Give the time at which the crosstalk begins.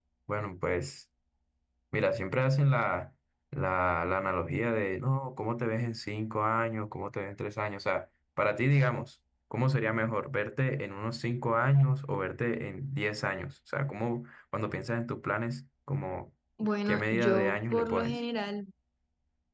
16.9 s

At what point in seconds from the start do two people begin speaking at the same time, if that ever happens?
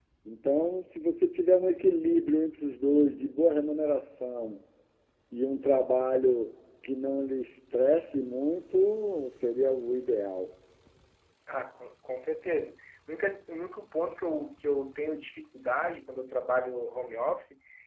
none

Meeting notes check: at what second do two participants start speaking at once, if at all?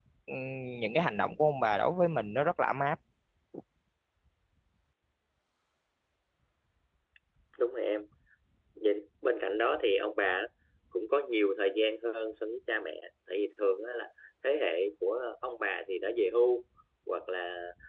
none

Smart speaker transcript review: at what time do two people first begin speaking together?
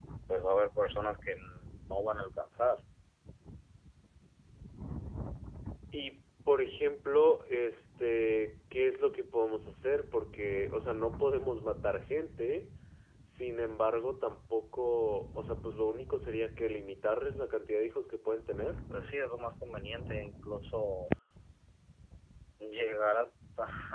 none

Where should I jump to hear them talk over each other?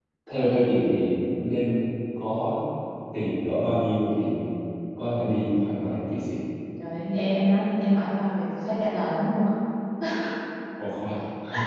none

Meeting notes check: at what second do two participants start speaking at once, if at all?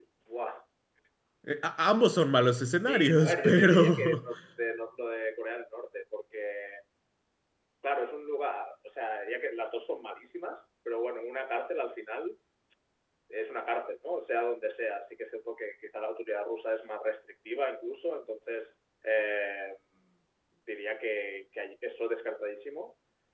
2.9 s

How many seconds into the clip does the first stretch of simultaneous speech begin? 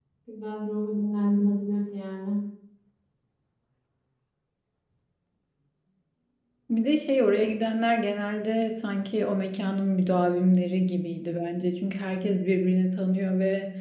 none

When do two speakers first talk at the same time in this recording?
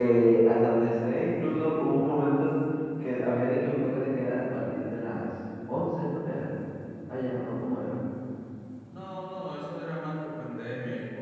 none

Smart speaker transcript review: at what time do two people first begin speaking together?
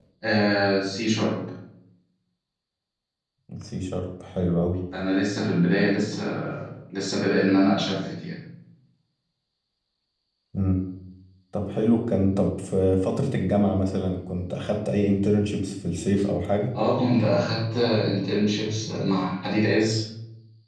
none

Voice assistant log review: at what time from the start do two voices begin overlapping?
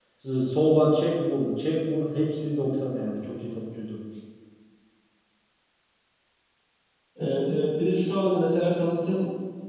none

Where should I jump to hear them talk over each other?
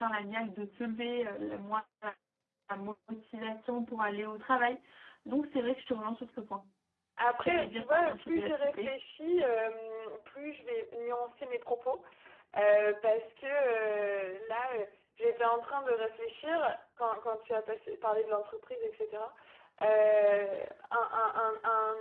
7.4 s

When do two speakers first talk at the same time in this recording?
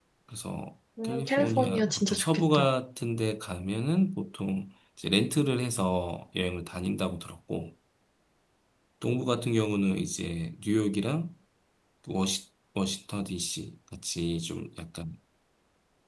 1.0 s

